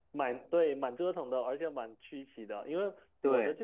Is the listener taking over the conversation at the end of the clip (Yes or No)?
No